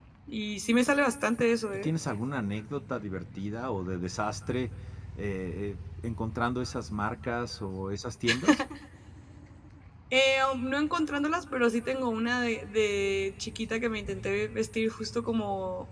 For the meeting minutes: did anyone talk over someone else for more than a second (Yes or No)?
No